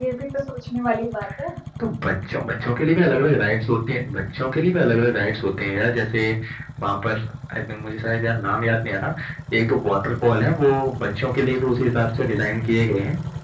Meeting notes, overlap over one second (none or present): none